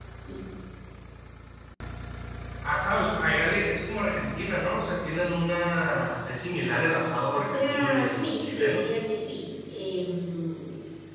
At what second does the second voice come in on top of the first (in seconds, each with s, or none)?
7.3 s